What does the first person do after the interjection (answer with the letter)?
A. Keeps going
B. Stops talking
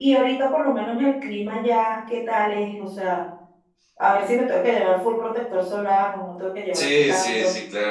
B